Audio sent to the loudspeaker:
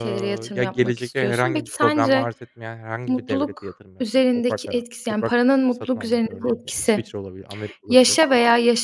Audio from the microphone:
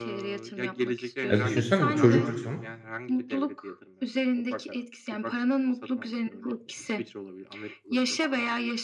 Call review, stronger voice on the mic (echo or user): user